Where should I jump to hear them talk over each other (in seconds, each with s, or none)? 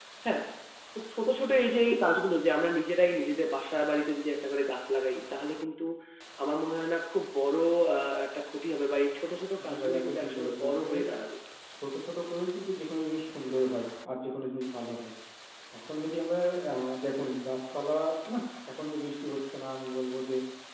9.6 s